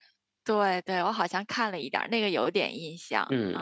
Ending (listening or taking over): taking over